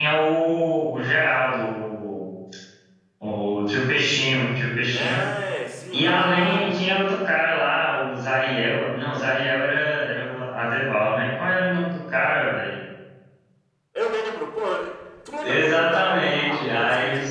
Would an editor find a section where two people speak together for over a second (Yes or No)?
Yes